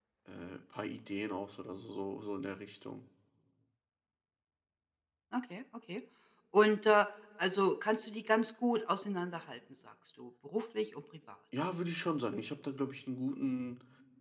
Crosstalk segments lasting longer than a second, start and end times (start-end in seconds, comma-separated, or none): none